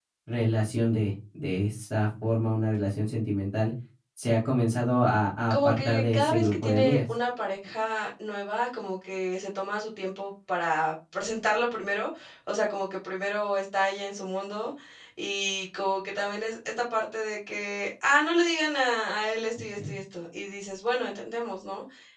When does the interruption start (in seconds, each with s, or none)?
5.5 s